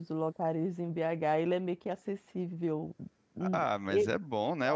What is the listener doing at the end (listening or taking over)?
taking over